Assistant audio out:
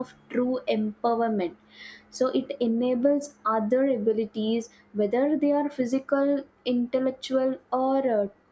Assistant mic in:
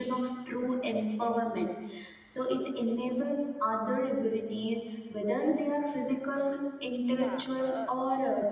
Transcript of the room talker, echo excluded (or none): yeah uh,